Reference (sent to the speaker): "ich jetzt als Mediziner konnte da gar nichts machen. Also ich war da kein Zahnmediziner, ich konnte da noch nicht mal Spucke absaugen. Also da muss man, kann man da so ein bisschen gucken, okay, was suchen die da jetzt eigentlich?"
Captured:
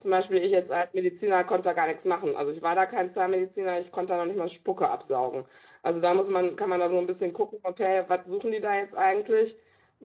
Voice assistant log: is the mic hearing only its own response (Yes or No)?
Yes